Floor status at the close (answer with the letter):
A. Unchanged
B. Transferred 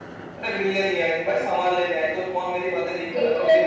B